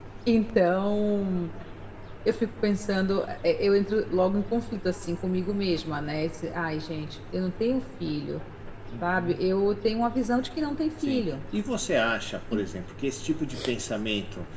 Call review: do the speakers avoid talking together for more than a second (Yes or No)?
Yes